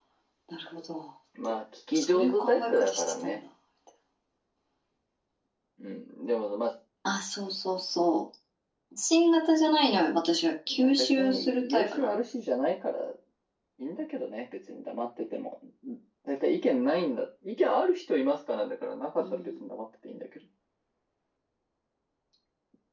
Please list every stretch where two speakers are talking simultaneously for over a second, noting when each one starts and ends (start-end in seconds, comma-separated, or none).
1.9-3.4, 10.7-12.1